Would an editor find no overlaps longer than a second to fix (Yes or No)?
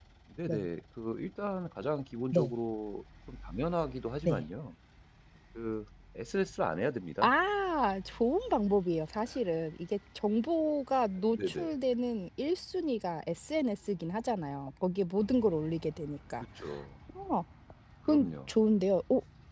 Yes